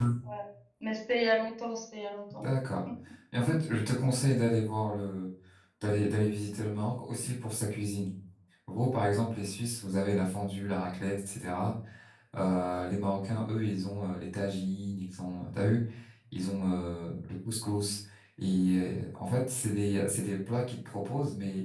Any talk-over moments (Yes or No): No